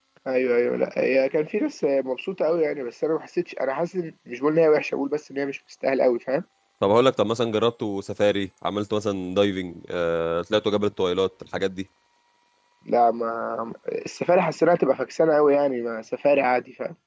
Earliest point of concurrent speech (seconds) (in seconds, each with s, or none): none